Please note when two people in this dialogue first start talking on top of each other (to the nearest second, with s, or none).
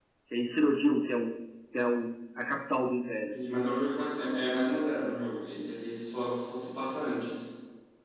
none